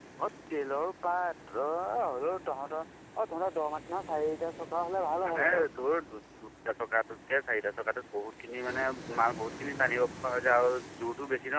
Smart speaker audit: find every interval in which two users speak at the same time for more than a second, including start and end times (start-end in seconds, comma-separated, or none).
none